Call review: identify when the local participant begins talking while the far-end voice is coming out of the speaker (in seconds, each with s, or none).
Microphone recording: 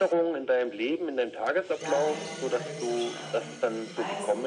1.8 s